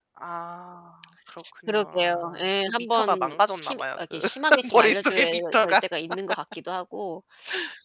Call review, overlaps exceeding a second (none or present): present